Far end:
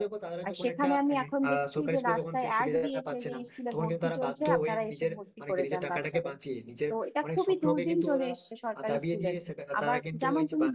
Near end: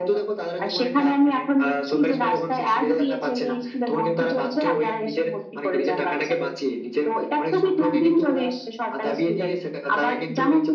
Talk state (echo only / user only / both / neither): echo only